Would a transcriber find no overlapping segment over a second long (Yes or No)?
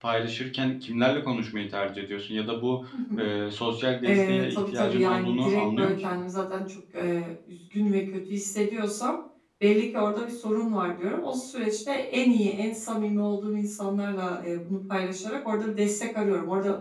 No